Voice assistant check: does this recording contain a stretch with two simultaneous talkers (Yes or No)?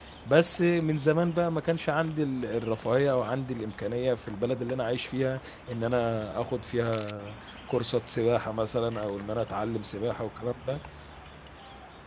No